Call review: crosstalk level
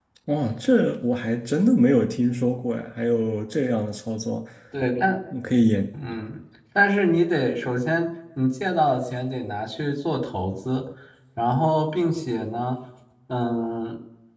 none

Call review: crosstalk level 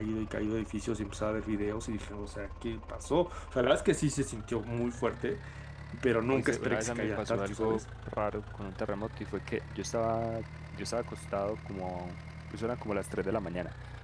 present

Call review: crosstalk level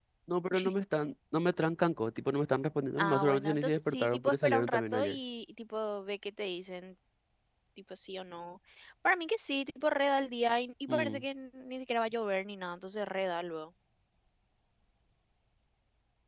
present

